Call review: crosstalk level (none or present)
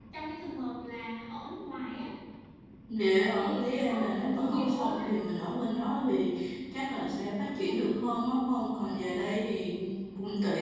present